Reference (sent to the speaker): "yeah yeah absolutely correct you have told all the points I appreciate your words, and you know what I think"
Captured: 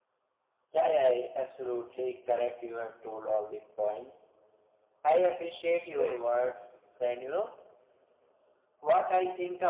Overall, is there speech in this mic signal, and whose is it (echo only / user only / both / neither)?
both